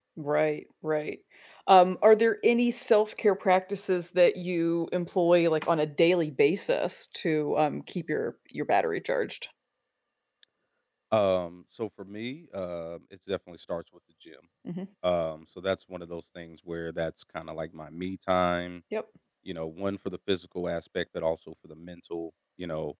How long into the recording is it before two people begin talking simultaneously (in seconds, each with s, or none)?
none